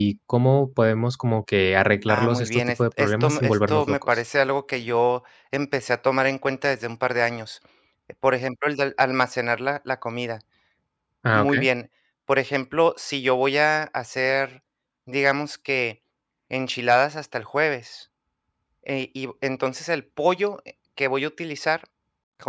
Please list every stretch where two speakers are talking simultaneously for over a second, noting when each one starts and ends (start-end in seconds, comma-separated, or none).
2.1-4.2